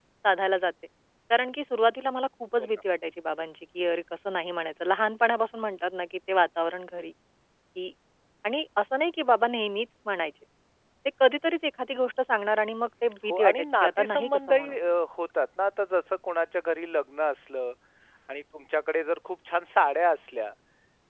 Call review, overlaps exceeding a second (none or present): present